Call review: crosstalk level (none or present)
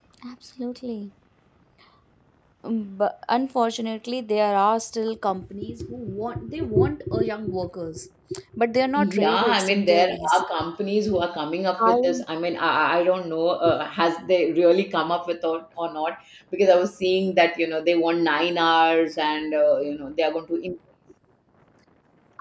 present